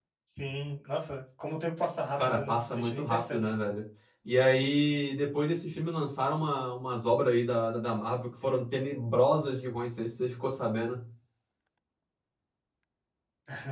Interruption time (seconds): 2.2 s

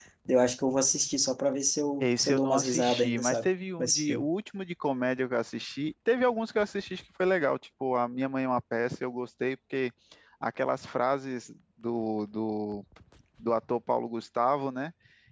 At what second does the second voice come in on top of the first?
2.0 s

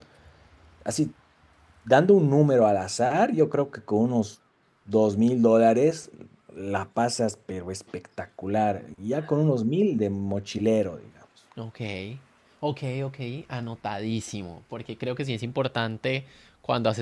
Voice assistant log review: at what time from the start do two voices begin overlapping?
none

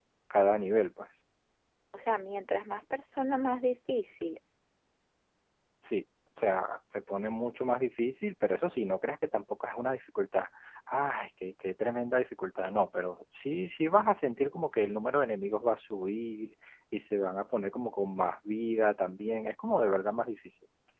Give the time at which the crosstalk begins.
none

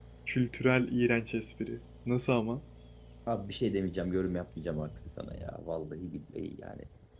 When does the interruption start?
none

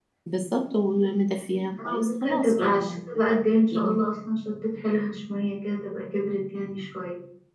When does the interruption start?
1.7 s

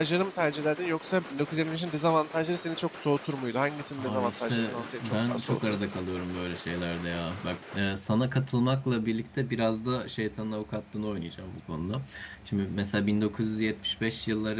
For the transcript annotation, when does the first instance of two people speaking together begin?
4.0 s

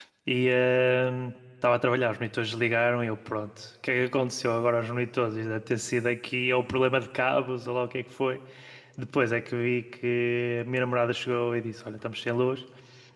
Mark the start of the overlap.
none

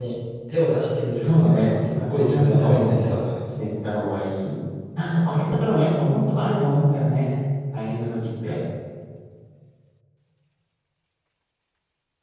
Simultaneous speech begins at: 1.2 s

